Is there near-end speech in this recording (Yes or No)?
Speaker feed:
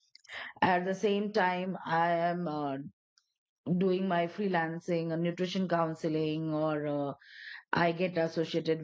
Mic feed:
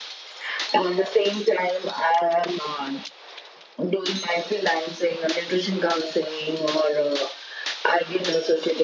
No